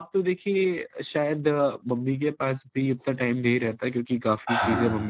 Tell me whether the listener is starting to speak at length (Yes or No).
No